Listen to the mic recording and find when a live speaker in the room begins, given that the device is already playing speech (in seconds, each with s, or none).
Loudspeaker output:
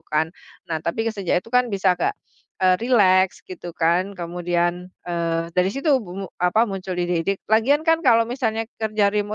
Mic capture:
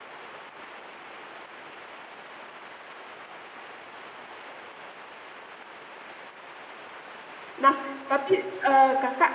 7.6 s